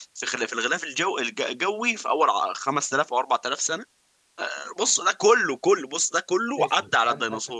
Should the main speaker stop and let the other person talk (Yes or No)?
Yes